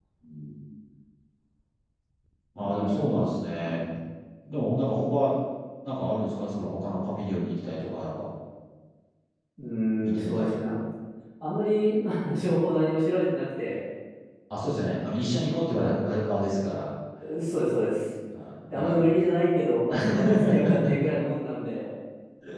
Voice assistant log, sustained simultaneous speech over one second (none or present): present